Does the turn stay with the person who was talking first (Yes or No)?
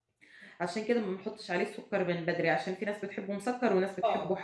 No